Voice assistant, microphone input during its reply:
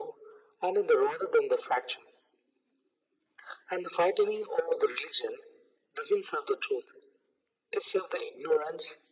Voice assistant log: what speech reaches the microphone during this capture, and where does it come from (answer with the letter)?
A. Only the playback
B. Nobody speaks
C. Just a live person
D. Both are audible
A